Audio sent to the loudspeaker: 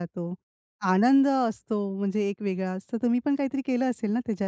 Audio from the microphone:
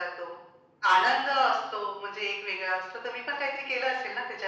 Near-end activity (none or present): none